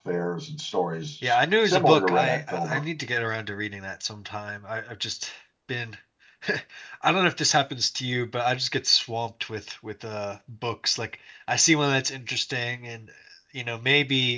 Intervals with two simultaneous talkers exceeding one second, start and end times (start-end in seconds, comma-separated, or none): 1.2-2.8